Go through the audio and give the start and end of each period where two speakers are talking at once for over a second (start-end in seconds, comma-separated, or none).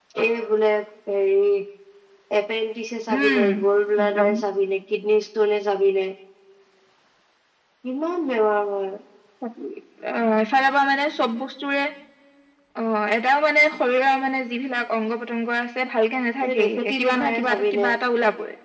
16.4-17.9